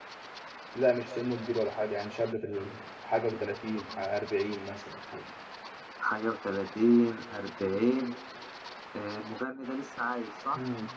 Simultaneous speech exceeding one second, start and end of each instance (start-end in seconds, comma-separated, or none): none